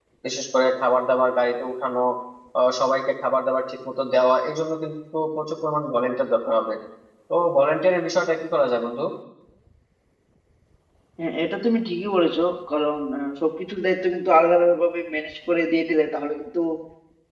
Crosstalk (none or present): none